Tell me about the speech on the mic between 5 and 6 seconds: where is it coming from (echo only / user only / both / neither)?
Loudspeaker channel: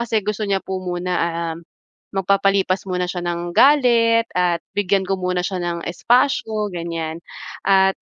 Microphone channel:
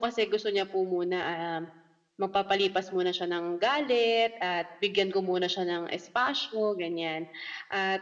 echo only